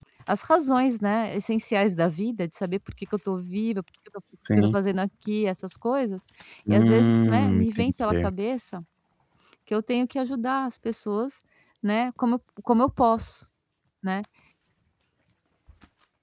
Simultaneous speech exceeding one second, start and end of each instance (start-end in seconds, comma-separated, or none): 6.7-8.3